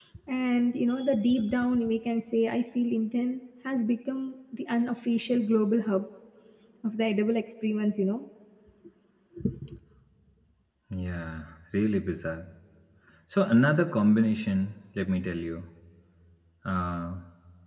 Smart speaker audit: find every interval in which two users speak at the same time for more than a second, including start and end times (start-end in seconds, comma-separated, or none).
none